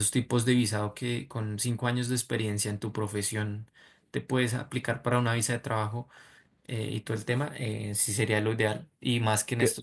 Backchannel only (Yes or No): Yes